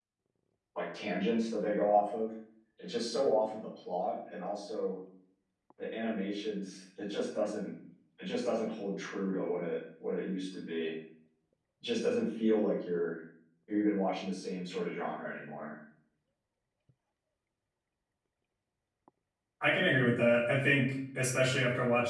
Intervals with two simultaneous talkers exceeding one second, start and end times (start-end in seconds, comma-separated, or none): none